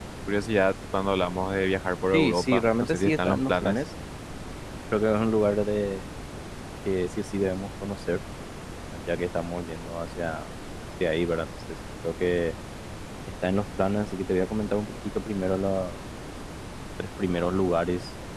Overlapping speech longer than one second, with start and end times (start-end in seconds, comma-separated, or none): 2.1-3.8